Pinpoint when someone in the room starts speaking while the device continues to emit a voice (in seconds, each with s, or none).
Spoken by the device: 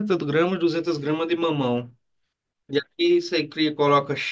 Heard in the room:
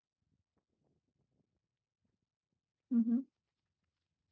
2.9 s